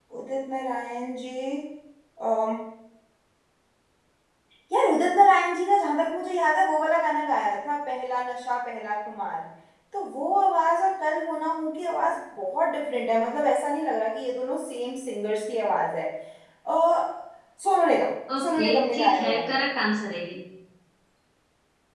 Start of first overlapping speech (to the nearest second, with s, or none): 18 s